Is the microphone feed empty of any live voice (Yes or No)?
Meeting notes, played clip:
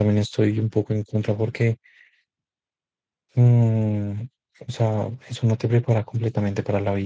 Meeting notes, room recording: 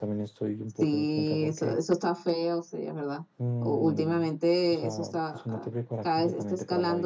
No